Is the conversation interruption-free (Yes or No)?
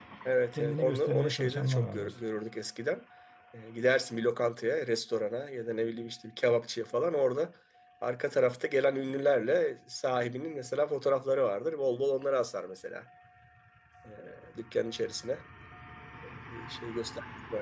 No